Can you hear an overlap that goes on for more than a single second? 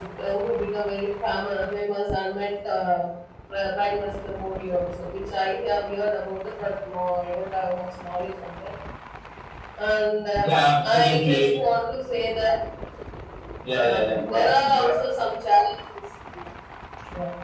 Yes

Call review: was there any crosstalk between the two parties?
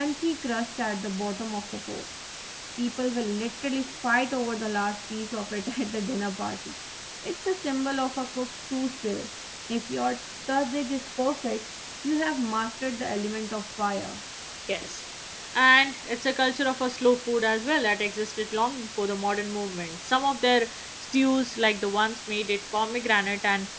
No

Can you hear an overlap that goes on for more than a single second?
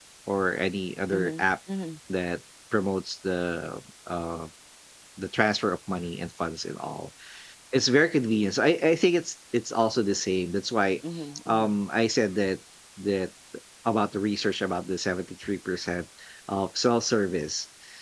No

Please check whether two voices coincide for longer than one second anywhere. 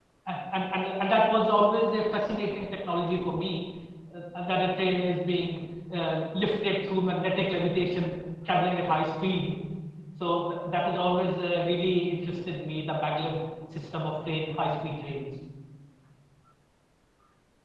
No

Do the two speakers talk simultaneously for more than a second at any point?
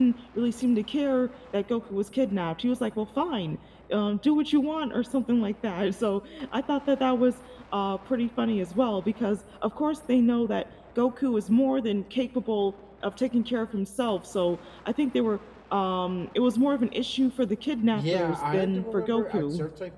Yes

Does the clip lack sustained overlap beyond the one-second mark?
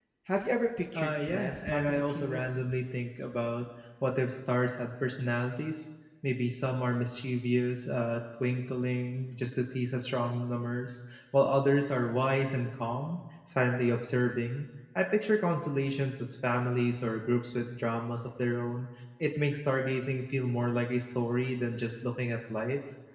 No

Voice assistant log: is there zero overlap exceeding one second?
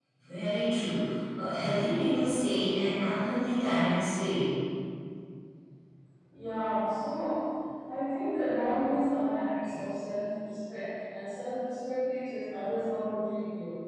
Yes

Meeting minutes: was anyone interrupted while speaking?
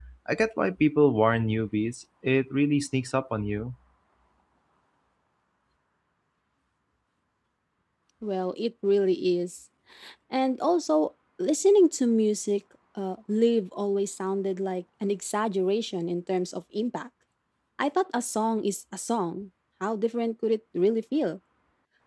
No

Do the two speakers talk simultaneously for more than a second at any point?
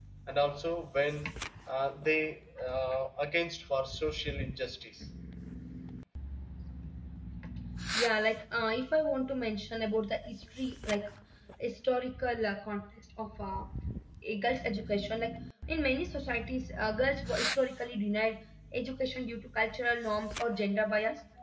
No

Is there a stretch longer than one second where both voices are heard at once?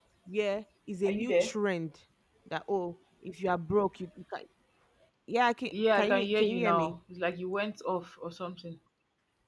Yes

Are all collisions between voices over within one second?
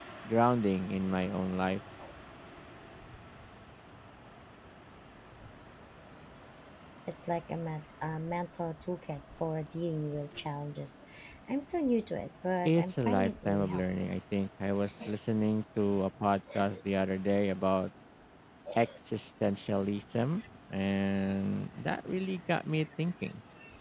No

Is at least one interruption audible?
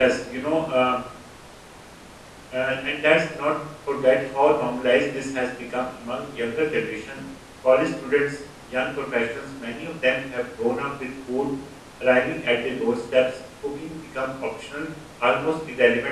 No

